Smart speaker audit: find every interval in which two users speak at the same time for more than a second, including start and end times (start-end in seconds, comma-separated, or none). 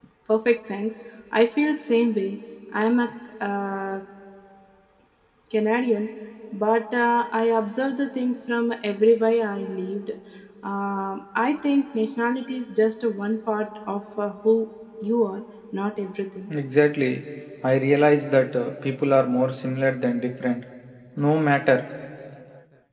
none